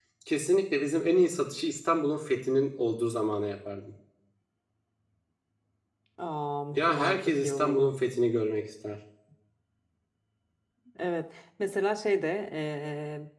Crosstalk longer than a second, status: present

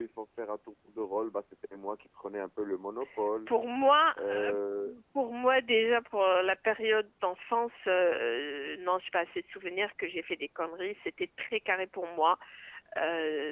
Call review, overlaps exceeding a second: none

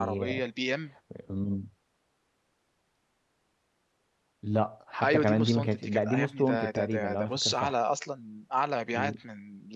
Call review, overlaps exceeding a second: present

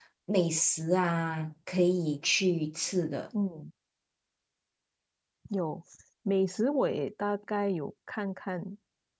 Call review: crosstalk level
none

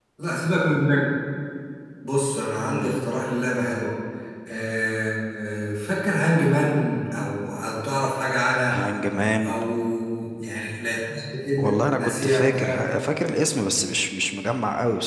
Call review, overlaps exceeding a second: present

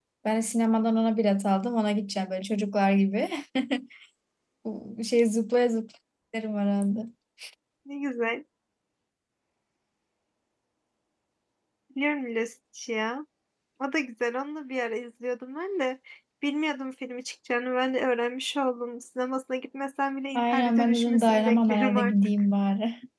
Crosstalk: present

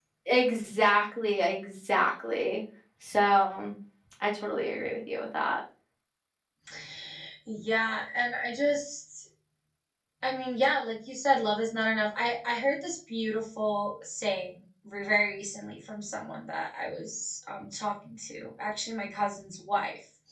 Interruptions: none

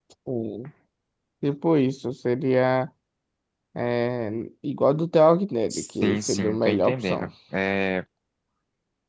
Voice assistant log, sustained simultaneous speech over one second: present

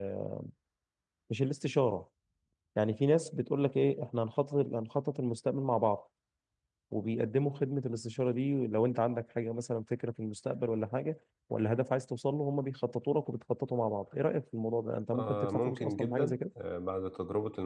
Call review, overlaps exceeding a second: present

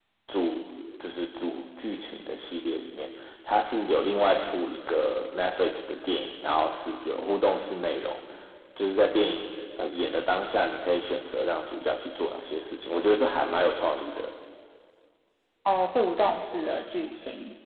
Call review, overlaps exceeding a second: none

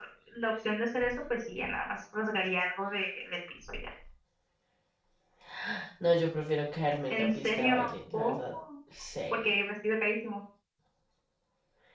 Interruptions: present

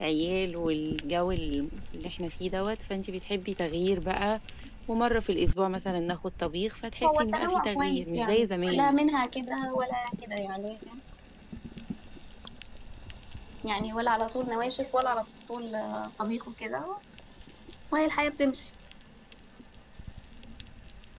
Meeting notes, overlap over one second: present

